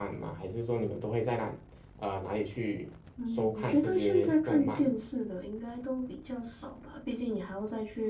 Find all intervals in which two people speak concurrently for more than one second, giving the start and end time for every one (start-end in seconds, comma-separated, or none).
3.3-4.9